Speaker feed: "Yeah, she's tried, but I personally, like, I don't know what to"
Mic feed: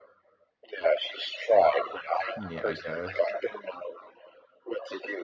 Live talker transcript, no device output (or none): Yeah, I guess.